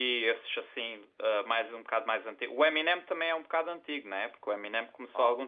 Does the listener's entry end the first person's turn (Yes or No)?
No